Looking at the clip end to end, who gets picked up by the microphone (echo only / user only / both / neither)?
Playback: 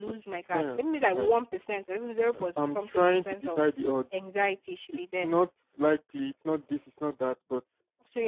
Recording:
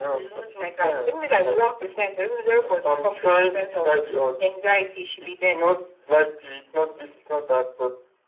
echo only